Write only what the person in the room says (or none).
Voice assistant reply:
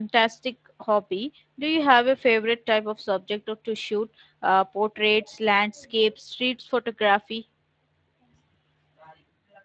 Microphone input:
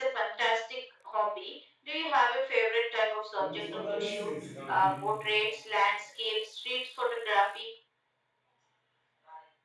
the most ordinary scenes can be